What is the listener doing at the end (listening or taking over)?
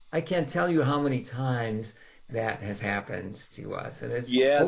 taking over